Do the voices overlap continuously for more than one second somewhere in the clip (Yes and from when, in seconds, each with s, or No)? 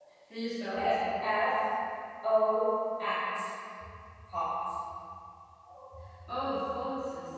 No